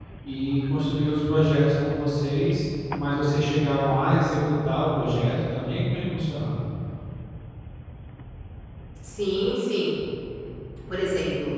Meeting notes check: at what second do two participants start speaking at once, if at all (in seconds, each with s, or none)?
none